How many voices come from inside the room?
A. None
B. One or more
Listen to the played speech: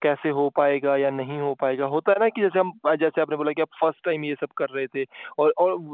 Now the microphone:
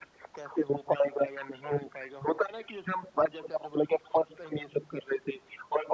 A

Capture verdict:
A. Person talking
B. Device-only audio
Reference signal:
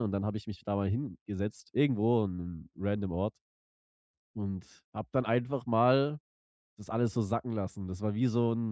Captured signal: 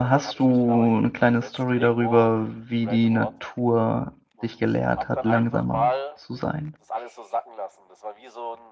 A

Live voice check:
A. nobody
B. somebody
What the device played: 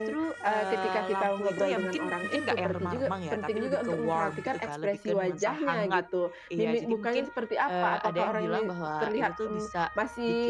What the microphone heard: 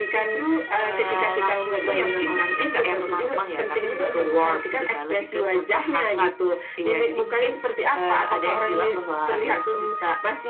A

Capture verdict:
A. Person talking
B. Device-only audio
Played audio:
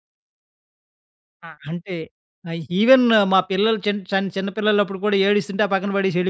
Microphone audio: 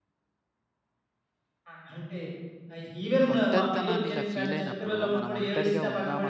A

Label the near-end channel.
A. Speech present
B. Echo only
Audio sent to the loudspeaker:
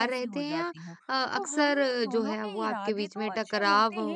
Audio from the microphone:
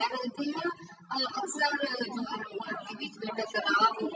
B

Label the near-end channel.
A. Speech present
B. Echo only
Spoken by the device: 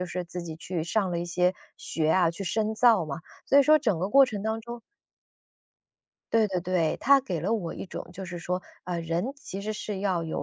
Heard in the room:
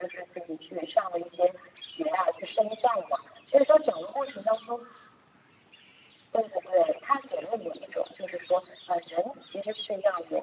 B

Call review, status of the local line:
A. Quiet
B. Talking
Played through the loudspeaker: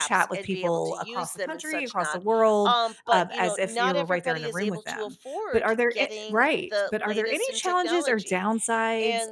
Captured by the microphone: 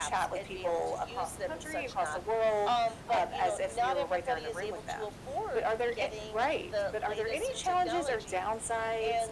A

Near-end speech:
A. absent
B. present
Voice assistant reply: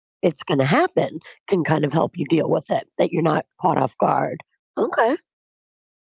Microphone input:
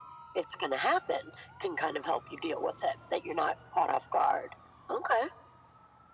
A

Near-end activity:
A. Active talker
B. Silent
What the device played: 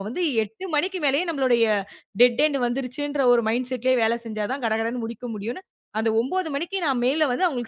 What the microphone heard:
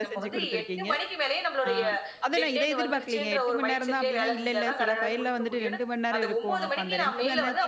A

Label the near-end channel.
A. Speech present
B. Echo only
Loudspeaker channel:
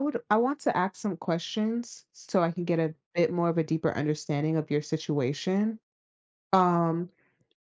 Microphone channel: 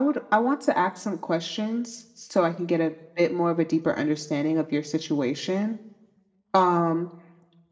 B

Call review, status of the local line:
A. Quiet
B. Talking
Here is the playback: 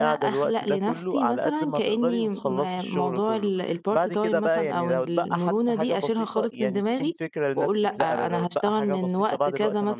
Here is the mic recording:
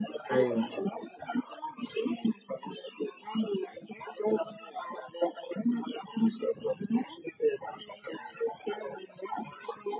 B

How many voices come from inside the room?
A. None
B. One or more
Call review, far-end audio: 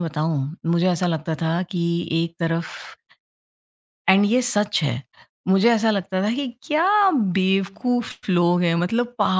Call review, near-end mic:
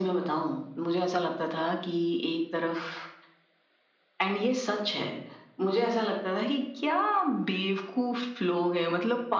A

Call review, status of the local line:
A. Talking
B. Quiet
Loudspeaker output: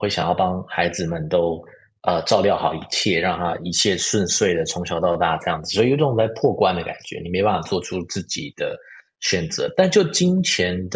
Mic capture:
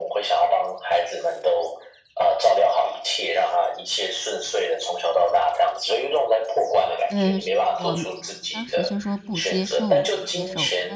A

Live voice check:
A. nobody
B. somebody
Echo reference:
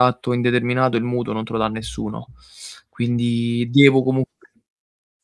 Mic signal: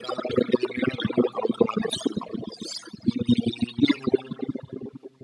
A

